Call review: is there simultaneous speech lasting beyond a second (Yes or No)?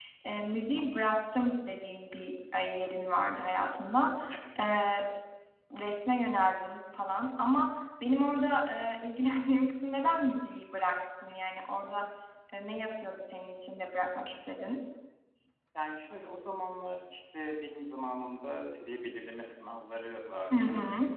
No